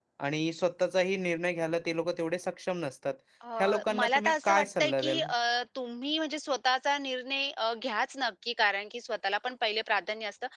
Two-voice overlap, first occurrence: 3.6 s

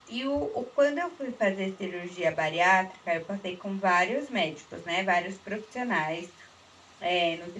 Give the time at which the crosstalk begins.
none

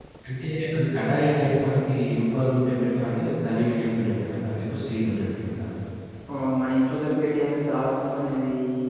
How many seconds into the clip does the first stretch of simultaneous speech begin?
none

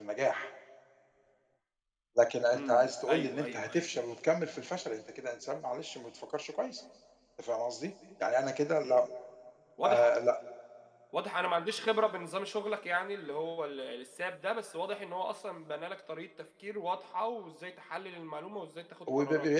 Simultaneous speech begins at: 2.5 s

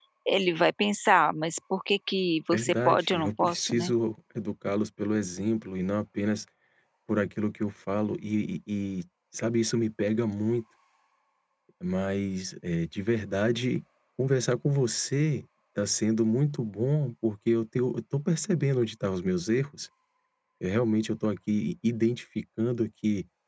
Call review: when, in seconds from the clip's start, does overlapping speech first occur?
2.5 s

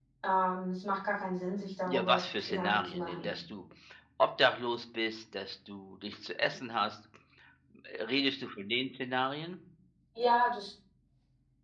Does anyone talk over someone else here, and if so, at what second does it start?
1.8 s

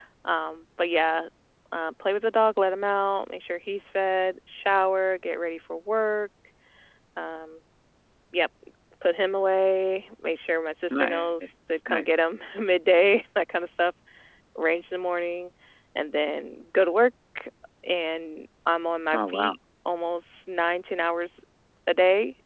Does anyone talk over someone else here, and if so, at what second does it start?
10.9 s

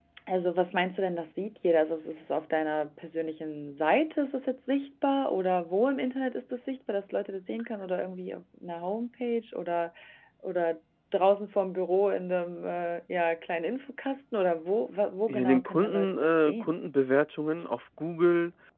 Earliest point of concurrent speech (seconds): 15.3 s

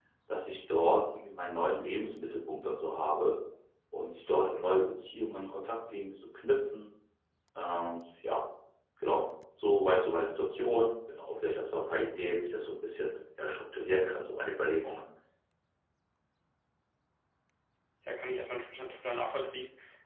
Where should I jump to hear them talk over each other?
none

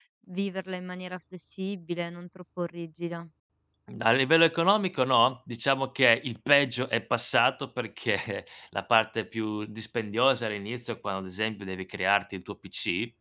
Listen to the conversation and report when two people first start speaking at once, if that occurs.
none

